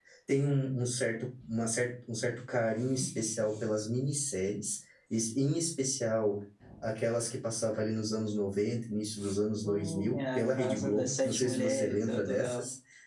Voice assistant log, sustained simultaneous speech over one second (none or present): present